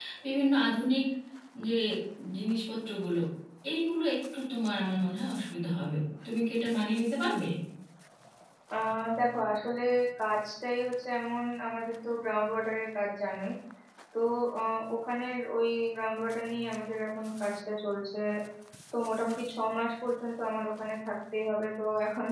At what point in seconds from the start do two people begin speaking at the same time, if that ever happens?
none

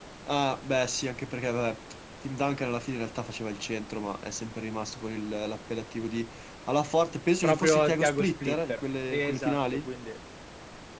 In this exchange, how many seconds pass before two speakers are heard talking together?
7 s

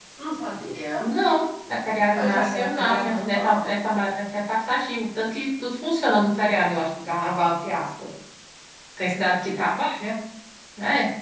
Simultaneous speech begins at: 2 s

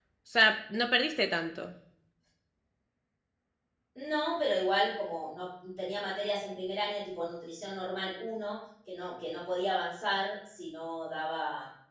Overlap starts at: none

